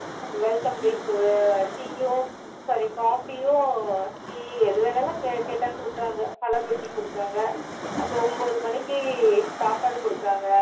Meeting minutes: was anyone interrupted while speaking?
No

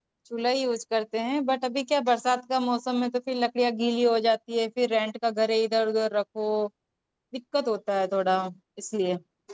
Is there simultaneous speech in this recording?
No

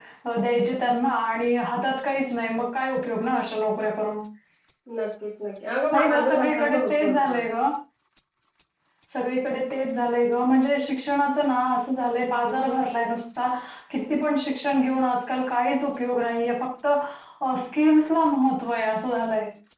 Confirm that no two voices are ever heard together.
No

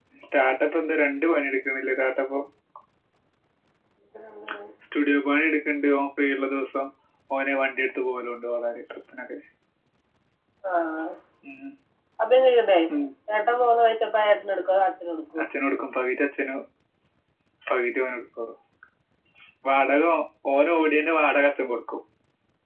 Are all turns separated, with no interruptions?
Yes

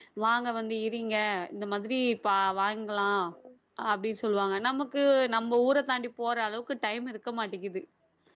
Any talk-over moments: No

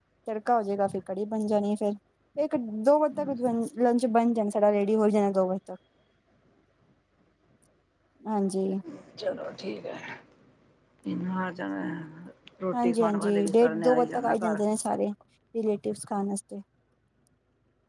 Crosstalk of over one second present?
Yes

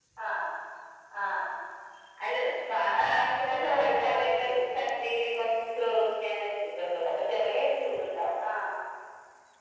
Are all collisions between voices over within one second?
No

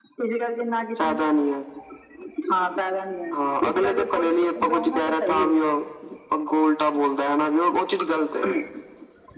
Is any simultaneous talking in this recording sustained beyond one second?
Yes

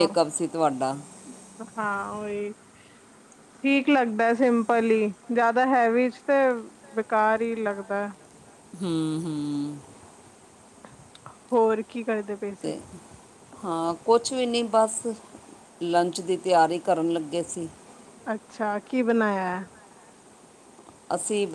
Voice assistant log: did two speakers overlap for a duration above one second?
No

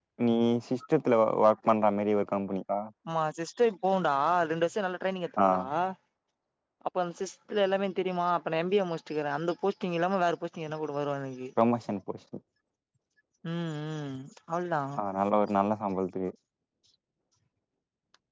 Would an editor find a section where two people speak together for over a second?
No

